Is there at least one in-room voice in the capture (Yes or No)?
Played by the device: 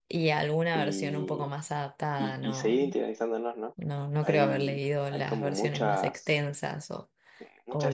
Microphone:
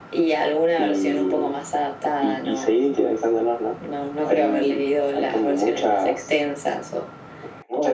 No